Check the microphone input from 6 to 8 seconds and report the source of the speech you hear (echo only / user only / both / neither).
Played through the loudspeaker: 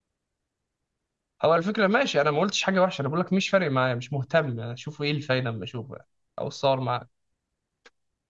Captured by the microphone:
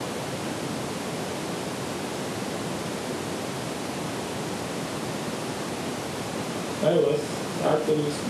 user only